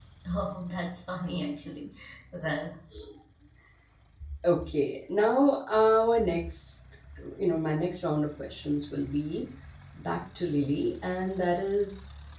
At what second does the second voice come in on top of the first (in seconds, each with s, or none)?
none